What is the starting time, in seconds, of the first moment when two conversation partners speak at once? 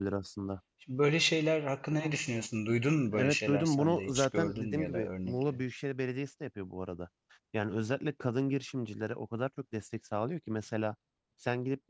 3.1 s

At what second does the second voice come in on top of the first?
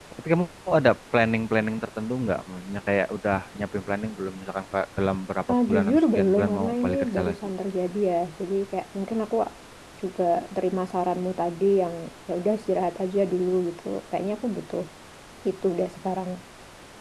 5.5 s

